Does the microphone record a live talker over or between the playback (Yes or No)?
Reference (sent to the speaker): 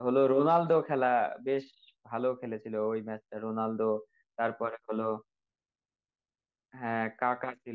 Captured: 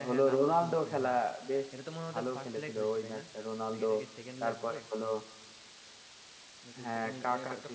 Yes